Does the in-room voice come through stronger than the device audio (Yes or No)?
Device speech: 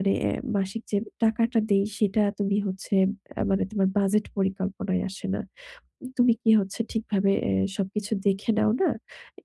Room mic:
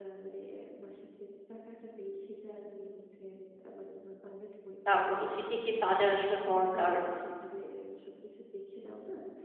Yes